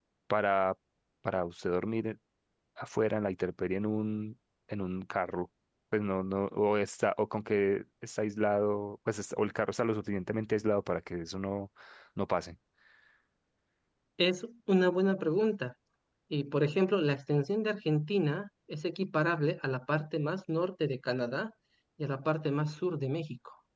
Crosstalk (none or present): none